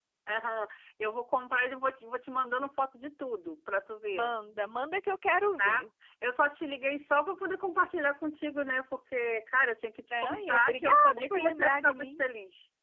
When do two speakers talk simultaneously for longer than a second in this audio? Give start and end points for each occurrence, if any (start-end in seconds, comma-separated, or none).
10.1-12.2